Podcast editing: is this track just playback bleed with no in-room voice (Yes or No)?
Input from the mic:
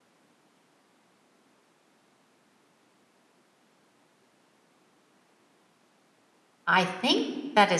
No